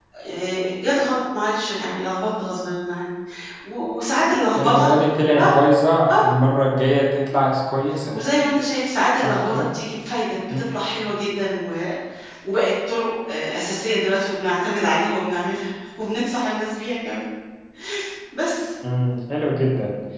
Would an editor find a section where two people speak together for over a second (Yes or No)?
No